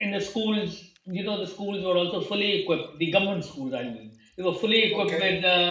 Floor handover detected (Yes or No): No